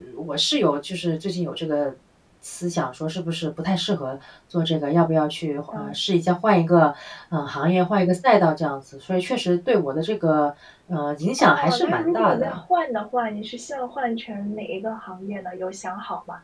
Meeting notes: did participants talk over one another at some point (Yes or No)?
Yes